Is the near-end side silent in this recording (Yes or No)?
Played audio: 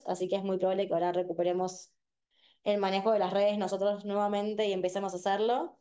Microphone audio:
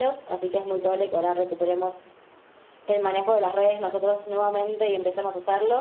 Yes